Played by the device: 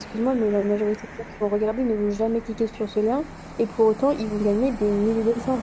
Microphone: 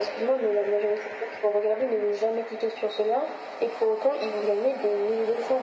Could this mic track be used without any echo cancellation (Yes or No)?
No